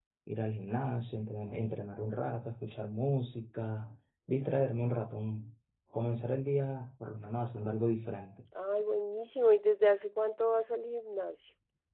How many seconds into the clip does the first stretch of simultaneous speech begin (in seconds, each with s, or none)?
none